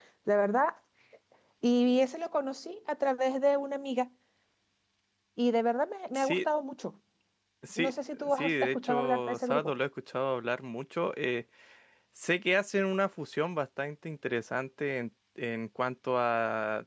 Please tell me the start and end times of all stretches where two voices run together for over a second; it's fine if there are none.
7.8-9.7

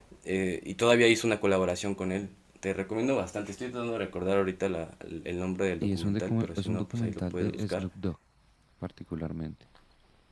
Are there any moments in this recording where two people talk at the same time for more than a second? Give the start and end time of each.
5.8-7.8

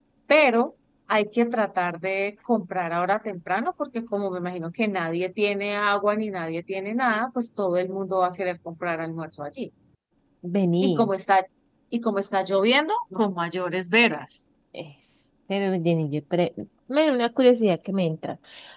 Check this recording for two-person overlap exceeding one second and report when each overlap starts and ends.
none

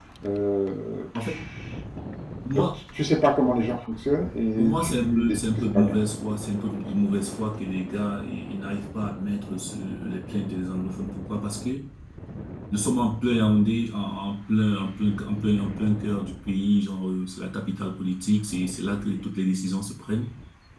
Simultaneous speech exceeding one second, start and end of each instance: 4.6-5.9

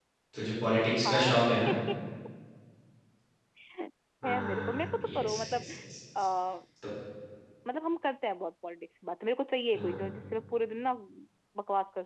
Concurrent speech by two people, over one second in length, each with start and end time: 4.2-5.7

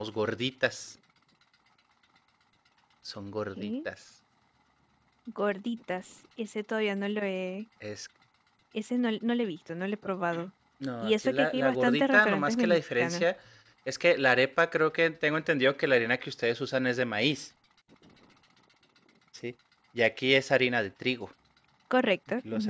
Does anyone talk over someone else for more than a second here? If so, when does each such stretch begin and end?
11.0-13.2

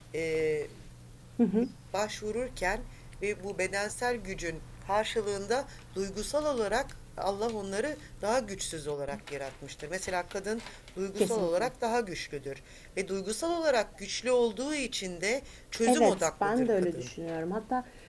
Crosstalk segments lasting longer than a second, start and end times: 15.8-17.1

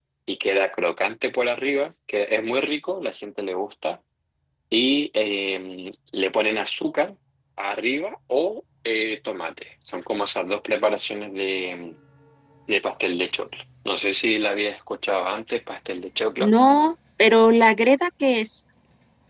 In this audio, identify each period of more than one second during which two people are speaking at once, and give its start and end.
none

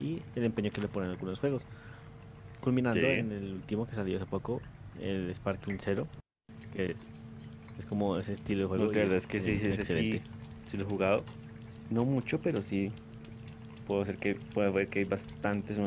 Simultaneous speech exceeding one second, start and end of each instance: 8.8-10.2

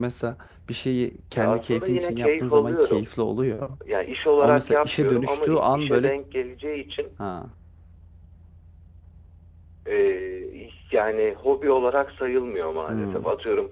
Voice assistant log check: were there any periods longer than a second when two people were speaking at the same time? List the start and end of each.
1.4-3.1, 4.4-6.1

